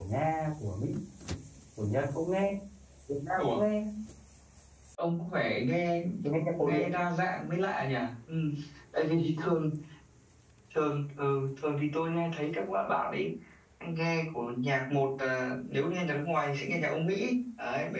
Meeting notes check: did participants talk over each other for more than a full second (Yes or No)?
No